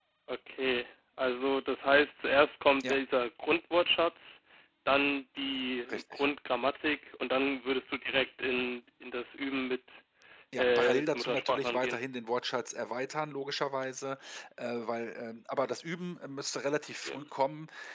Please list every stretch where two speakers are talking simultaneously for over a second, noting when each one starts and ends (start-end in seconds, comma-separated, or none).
10.6-12.0